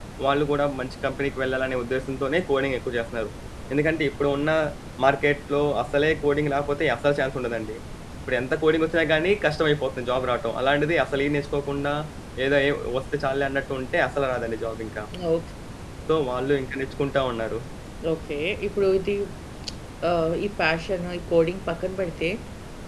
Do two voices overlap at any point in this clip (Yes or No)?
No